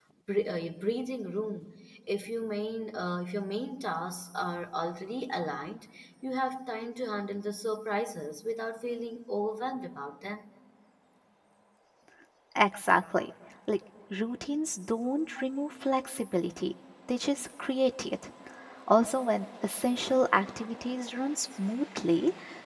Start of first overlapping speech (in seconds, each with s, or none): none